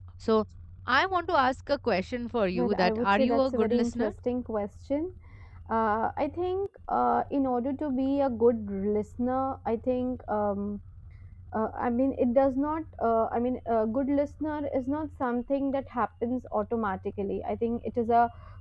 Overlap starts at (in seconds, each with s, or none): 2.5 s